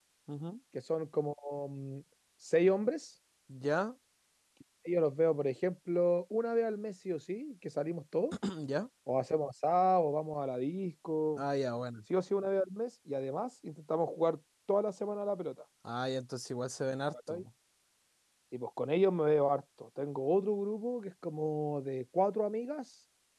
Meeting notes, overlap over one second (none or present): none